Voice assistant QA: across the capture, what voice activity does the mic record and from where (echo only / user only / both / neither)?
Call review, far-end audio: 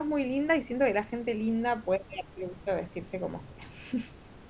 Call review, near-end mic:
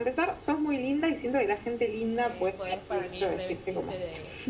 both